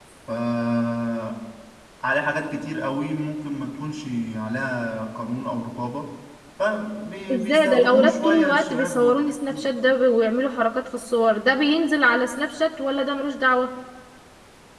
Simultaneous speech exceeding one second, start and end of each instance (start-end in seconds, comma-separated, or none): 7.3-9.7